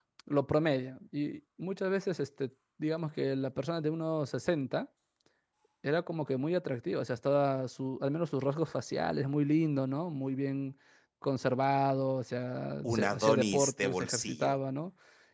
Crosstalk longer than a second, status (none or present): present